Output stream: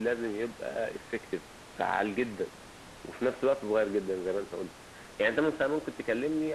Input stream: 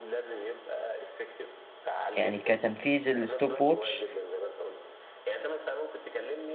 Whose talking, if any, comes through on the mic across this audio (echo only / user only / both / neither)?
both